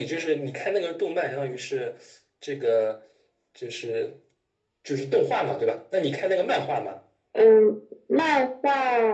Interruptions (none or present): none